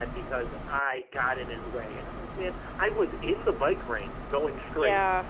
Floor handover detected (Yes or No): No